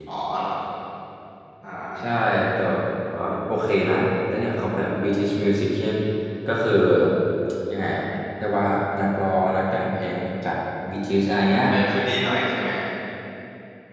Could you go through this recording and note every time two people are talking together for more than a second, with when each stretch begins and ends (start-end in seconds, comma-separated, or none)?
none